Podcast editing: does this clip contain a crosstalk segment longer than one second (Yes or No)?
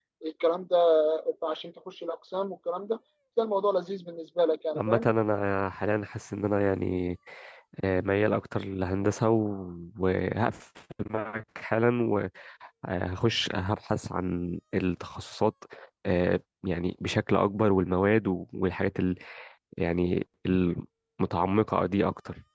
No